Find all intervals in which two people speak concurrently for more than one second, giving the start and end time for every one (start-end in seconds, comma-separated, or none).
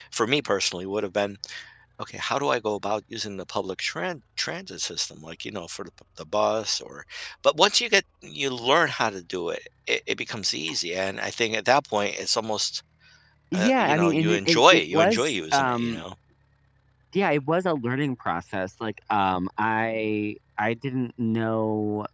13.5-16.0